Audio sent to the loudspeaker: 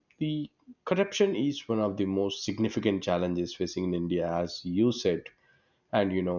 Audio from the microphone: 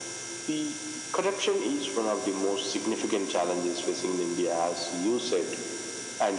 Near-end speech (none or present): none